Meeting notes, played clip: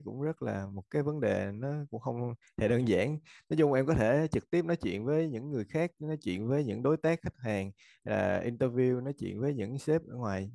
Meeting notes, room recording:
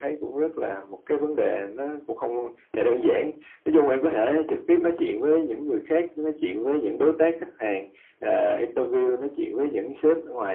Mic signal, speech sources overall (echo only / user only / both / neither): echo only